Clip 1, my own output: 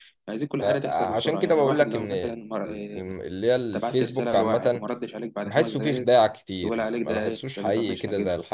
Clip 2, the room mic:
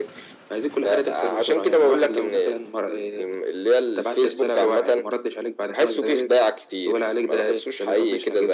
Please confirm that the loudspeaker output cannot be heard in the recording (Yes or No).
No